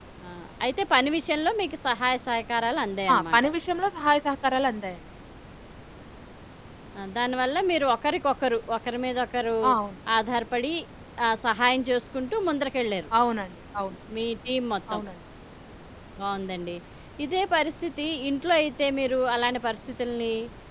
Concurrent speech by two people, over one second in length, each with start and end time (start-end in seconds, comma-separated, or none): none